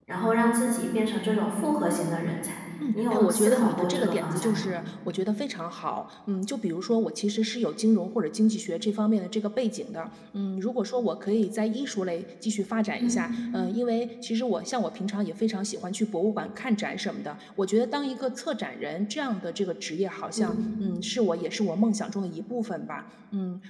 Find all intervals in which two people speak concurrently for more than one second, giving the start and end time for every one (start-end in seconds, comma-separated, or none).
2.9-4.7